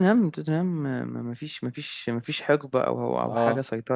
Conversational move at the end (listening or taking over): listening